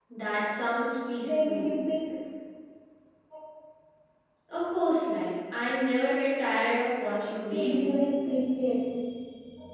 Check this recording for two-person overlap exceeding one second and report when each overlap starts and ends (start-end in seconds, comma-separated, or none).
none